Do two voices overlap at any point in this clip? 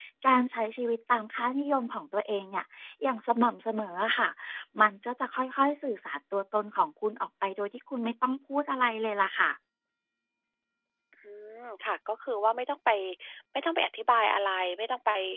No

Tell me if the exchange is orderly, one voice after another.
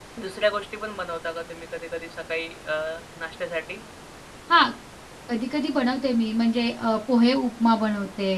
Yes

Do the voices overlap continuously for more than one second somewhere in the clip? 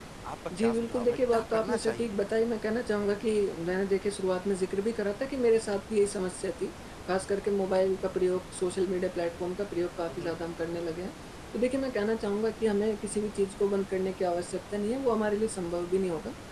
Yes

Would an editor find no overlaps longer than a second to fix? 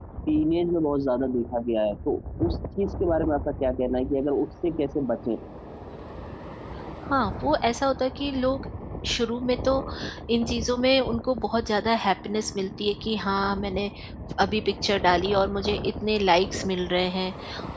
Yes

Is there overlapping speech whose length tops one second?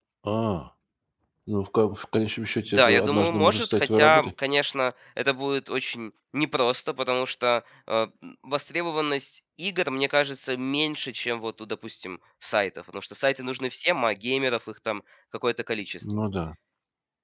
Yes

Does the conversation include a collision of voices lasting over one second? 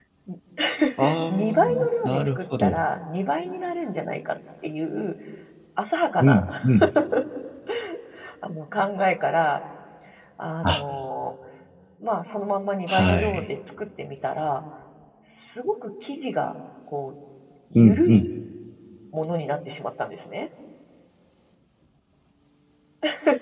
Yes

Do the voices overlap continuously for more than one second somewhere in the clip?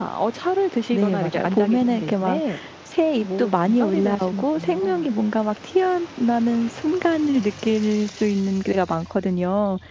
Yes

